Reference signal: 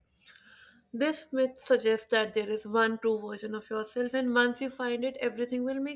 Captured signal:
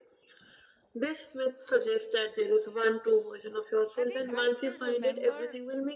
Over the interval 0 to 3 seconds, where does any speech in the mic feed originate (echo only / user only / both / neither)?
echo only